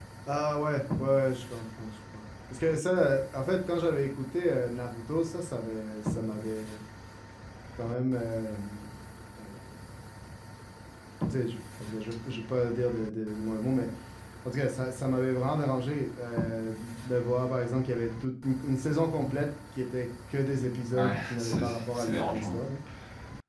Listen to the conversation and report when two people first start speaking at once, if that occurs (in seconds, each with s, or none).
20.9 s